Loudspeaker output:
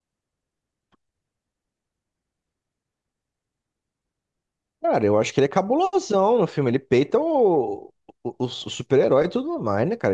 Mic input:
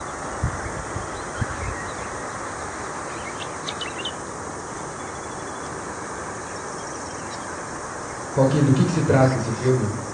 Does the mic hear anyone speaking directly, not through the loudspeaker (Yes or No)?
Yes